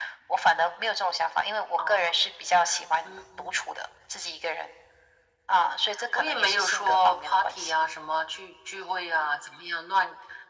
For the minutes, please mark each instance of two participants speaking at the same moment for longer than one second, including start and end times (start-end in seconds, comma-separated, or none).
6.2-7.7